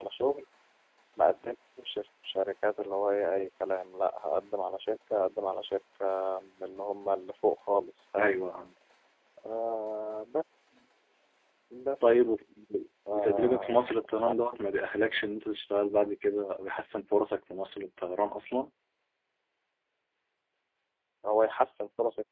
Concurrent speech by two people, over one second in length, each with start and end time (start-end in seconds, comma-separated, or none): 13.1-14.4